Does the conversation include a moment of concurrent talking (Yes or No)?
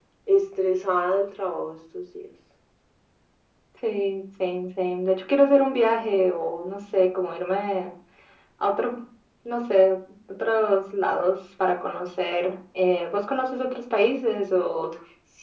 No